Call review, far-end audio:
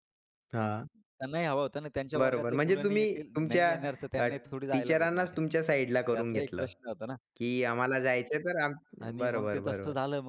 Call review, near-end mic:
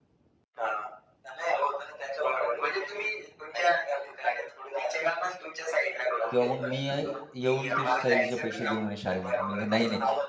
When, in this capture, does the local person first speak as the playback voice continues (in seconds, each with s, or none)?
6.3 s